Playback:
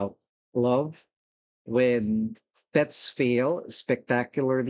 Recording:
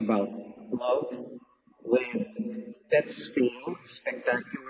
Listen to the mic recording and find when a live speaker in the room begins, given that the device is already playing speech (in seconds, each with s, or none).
none